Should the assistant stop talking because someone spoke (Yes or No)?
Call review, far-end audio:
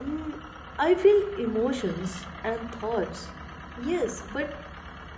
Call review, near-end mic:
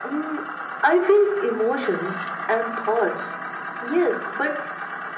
No